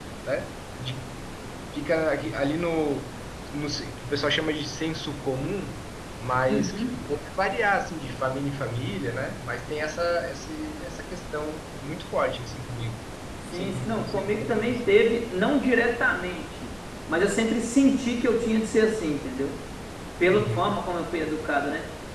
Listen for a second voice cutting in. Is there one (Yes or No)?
Yes